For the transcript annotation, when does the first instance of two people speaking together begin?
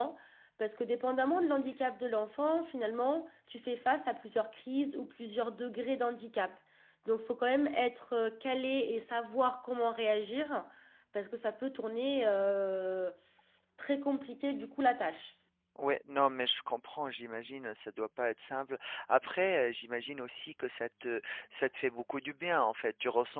none

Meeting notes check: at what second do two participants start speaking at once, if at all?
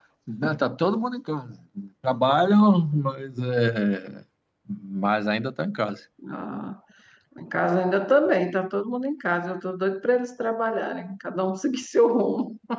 none

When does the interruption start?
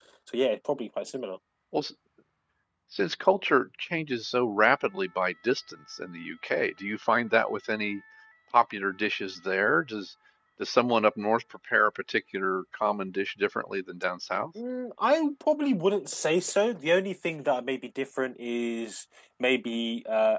none

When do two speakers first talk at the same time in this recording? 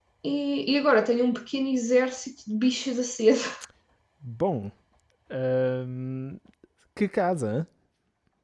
none

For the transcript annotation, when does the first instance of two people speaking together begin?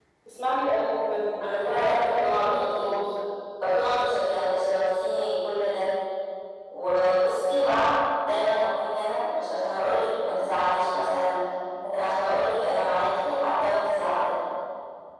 1 s

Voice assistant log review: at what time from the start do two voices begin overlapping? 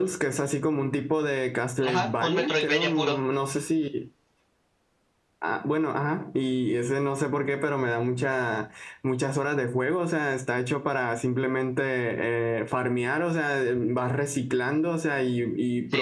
2 s

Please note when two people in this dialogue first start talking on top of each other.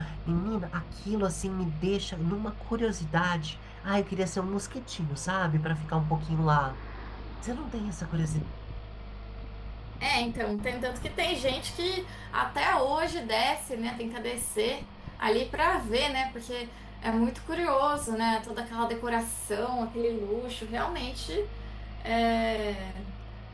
none

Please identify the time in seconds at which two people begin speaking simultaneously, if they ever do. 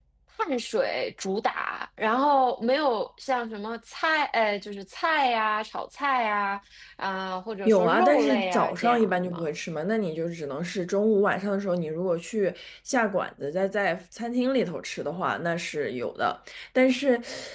8 s

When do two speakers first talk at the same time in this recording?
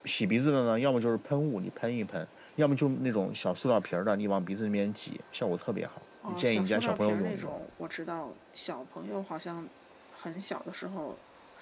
6 s

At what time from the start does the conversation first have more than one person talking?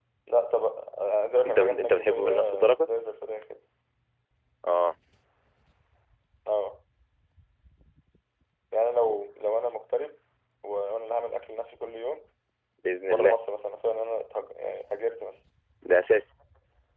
1 s

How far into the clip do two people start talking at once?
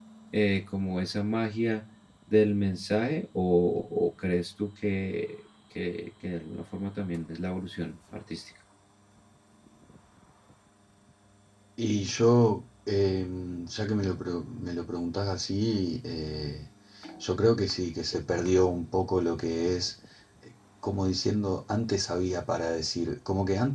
none

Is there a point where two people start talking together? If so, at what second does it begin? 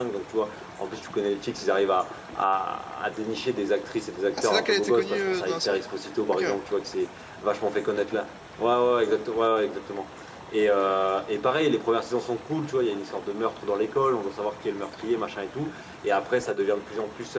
4 s

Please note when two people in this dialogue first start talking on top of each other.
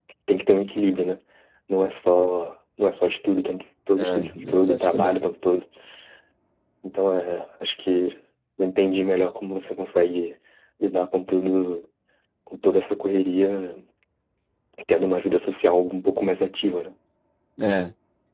4 s

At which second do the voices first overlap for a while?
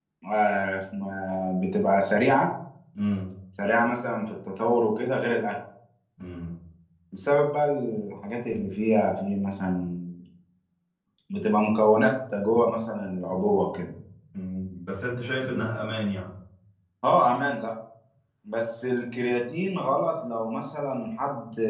none

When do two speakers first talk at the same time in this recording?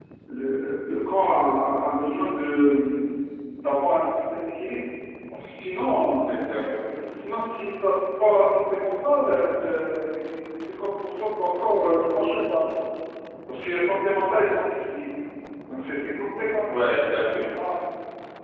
none

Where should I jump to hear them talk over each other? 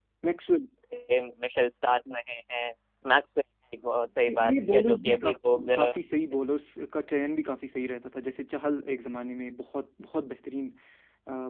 4 s

